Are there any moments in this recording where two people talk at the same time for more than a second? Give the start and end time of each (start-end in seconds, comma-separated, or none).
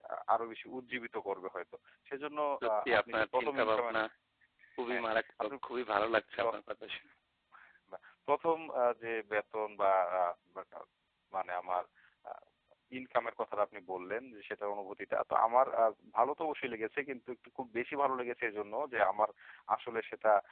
2.6-3.9